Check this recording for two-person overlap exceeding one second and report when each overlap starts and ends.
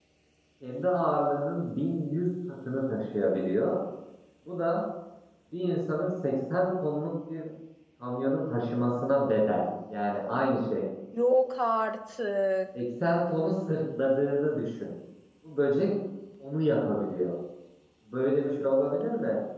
none

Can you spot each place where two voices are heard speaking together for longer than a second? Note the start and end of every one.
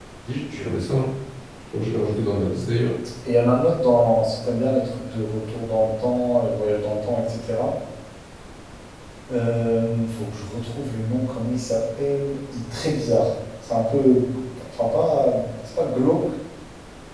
none

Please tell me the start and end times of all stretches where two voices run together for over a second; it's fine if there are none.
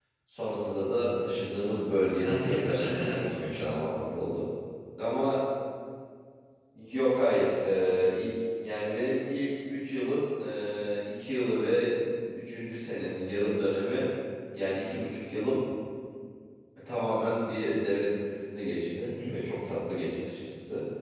2.1-3.8

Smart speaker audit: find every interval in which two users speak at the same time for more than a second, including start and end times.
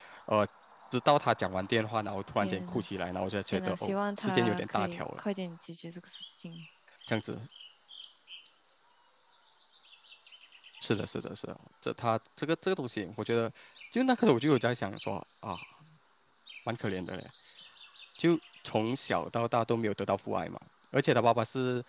3.5-5.2

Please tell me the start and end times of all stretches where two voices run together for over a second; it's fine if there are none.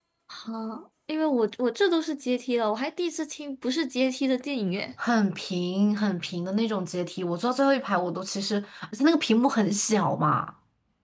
none

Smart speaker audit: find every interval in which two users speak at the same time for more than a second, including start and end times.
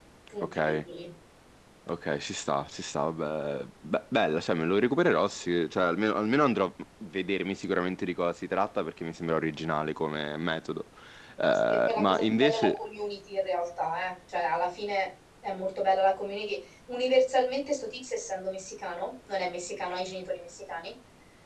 11.5-12.8

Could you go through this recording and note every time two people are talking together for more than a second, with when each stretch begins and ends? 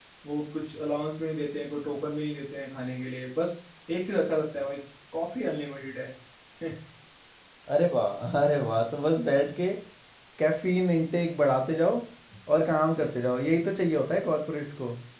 none

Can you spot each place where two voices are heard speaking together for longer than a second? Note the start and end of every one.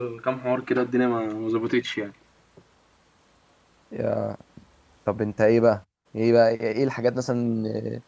none

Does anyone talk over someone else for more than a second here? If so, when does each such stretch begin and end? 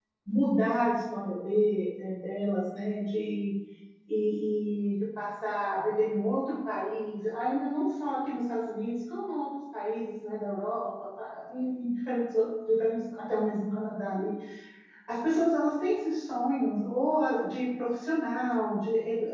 none

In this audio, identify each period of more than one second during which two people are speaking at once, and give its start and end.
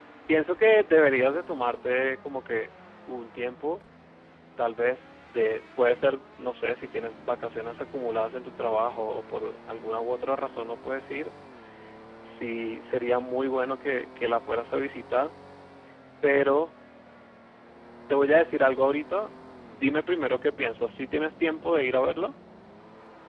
none

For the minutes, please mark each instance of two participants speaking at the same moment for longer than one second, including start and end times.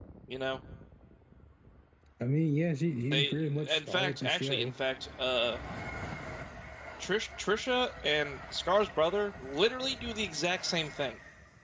3.1-4.7

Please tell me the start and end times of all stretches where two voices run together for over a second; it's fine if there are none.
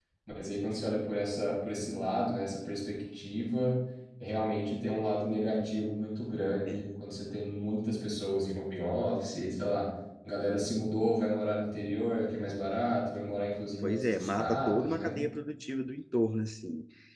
13.8-15.2

